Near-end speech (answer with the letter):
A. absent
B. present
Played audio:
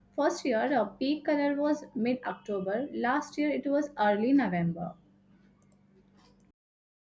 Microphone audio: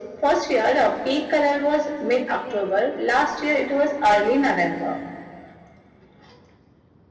A